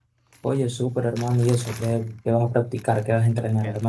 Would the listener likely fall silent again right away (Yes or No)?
No